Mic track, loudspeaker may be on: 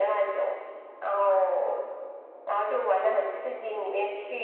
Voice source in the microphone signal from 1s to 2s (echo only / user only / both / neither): echo only